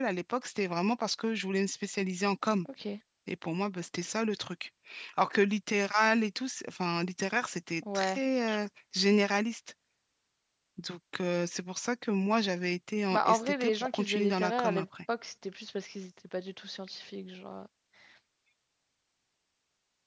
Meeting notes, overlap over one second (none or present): present